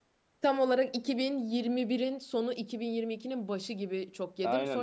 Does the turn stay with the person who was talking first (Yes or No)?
No